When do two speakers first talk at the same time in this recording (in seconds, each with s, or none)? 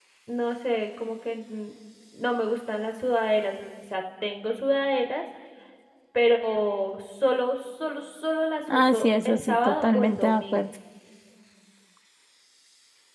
8.7 s